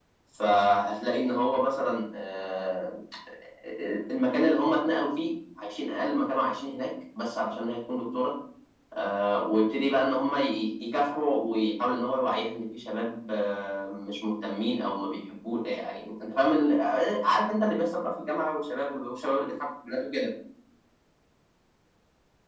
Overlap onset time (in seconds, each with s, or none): none